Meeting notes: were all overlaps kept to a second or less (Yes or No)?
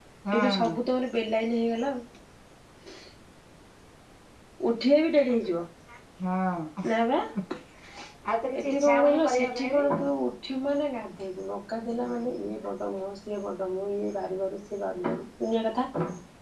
No